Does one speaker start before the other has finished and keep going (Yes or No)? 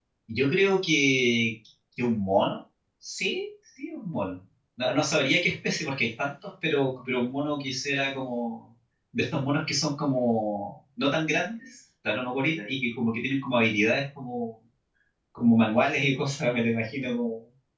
No